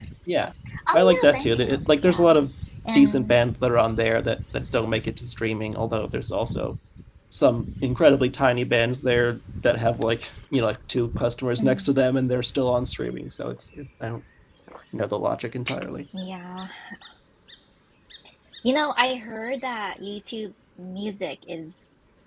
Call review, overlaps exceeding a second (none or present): present